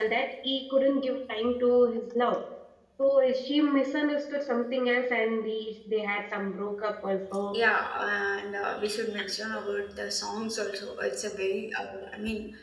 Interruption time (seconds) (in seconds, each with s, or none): none